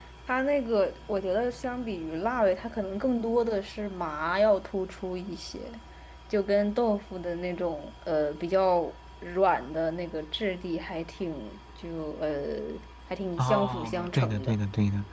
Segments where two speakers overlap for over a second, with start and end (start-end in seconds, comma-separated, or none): 13.4-14.6